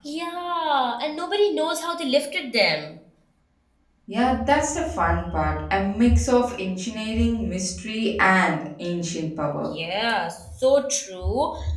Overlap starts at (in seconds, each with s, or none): none